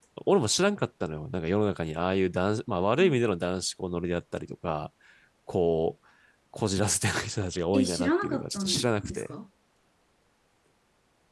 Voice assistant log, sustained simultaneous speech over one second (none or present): present